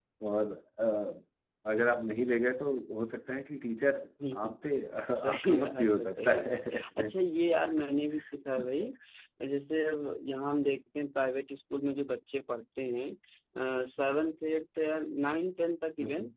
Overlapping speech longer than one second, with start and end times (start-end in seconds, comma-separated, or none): 5.3-7.1